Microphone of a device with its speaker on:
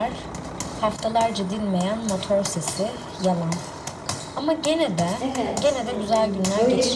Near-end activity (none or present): present